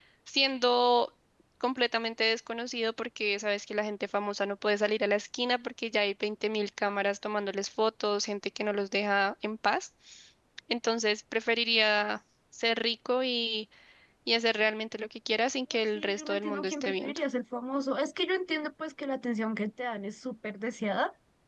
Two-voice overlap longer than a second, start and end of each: 15.9-17.2

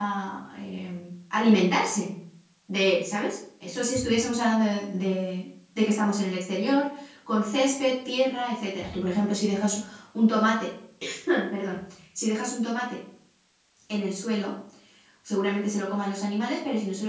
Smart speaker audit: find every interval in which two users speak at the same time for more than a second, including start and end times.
none

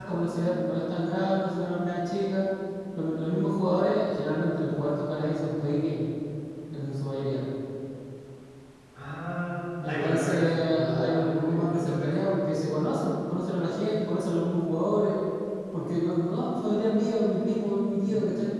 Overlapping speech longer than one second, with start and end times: 9.9-12.2

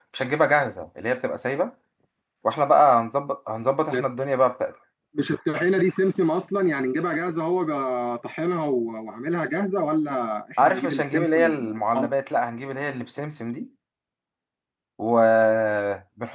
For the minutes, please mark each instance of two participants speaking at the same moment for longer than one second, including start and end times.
10.6-12.1

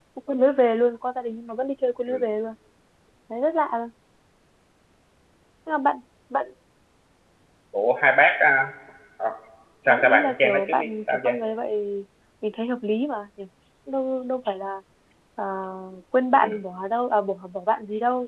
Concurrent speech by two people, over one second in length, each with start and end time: 9.9-11.4

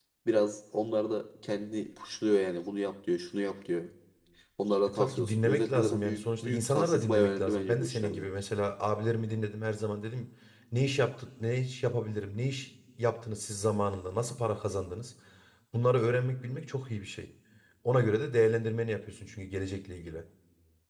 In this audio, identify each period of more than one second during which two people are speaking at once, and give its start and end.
4.9-8.3

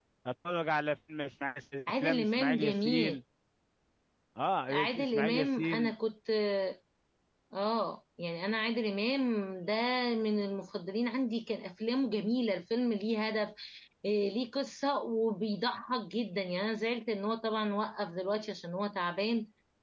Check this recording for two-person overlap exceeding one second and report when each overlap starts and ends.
1.9-3.2, 4.7-5.9

